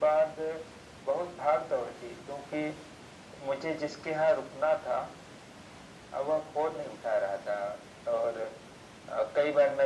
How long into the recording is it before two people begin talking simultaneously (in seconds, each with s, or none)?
none